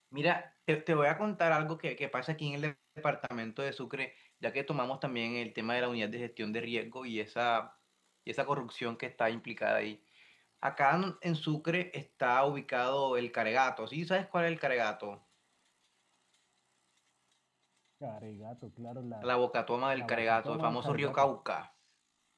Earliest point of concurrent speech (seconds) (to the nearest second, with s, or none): 20 s